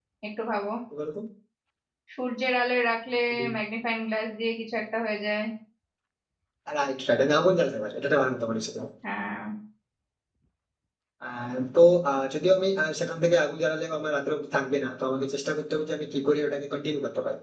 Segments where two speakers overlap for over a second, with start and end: none

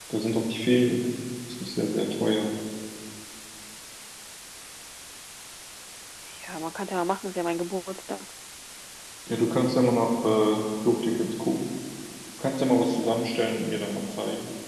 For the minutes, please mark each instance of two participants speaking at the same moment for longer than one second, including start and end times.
none

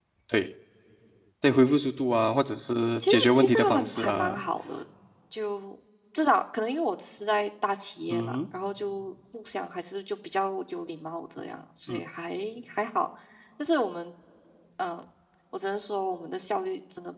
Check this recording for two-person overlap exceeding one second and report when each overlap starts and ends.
3.1-4.4

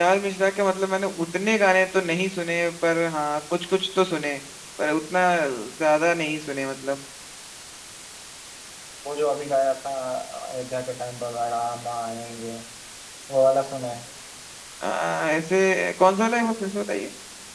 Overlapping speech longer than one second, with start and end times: none

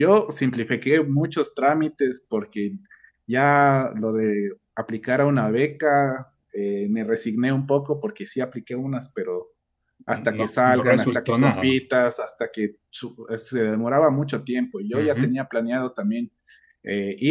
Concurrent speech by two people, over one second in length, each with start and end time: 10.4-11.7

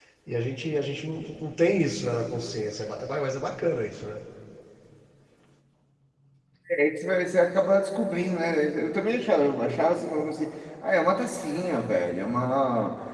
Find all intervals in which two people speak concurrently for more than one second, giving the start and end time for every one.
none

